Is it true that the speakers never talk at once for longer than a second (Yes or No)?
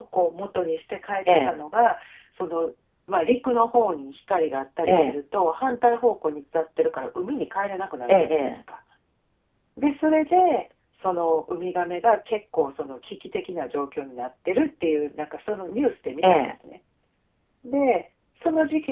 Yes